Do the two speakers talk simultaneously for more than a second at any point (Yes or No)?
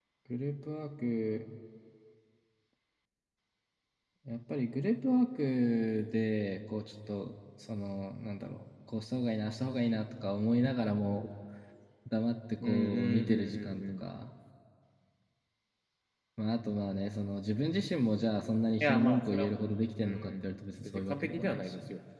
Yes